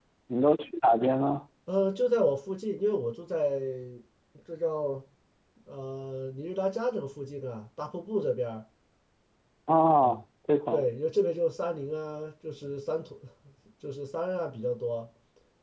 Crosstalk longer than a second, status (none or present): none